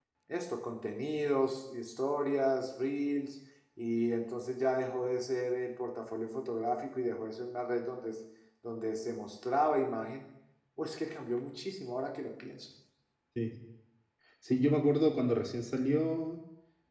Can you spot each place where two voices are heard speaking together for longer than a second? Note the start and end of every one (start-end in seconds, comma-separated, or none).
none